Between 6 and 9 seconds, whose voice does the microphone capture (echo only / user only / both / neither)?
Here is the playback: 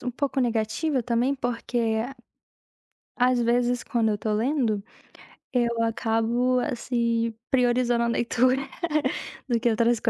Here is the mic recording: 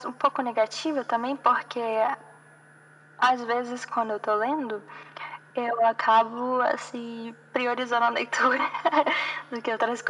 echo only